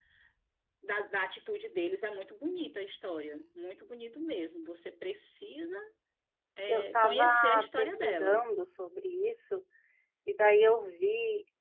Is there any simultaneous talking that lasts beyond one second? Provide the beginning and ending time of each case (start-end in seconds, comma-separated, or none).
6.7-8.4